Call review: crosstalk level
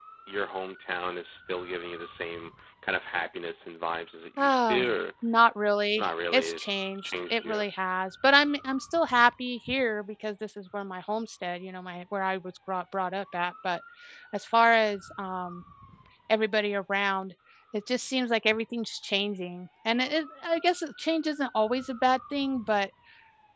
present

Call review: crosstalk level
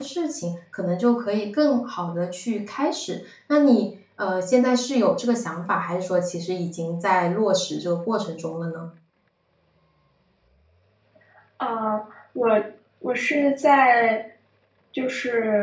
none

